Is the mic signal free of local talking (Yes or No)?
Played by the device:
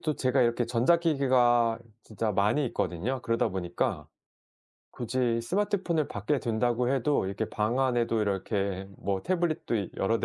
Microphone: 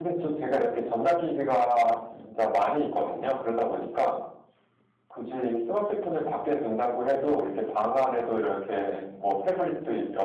Yes